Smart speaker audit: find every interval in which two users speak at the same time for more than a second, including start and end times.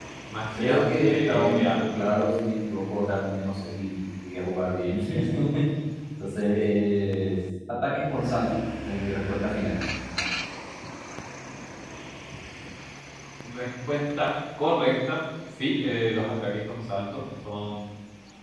0.6-2.0

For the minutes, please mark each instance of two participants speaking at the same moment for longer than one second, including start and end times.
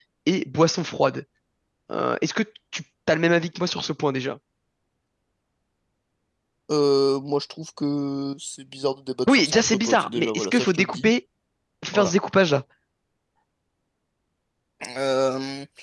9.3-11.1

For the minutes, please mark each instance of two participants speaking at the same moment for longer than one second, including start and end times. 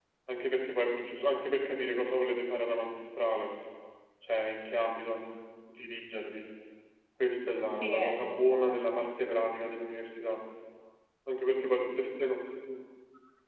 7.6-9.1

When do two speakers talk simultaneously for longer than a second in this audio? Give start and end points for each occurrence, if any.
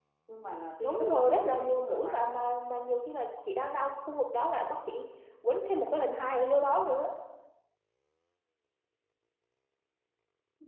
0.8-2.2

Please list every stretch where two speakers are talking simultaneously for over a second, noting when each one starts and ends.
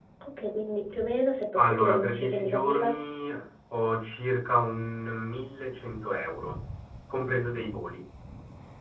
1.6-2.9

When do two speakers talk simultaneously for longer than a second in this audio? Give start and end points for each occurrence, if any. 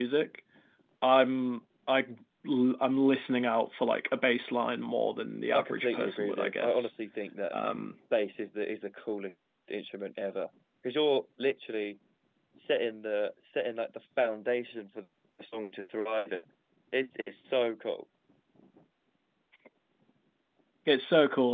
5.5-6.9

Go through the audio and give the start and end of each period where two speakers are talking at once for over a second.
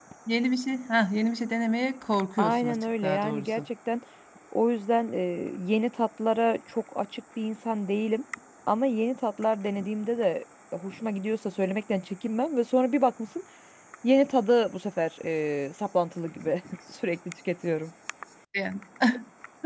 2.4-3.6

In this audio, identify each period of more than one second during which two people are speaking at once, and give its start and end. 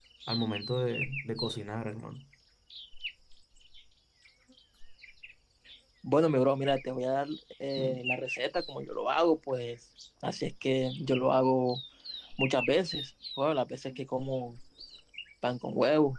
none

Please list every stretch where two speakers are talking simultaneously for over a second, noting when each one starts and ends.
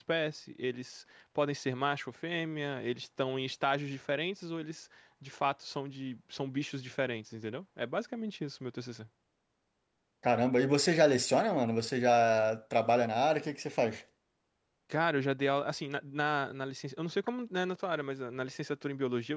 none

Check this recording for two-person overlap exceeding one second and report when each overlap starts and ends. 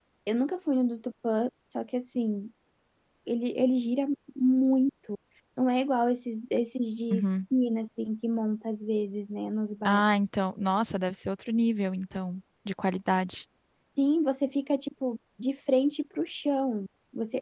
none

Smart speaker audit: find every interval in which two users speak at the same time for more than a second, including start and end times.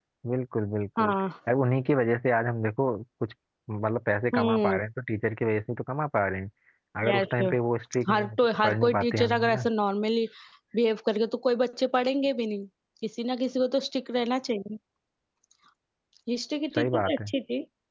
8.1-9.6

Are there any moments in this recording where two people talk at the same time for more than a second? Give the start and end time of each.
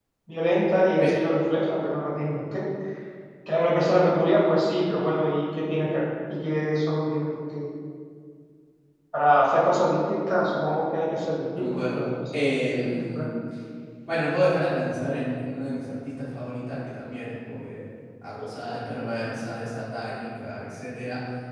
11.6-13.3

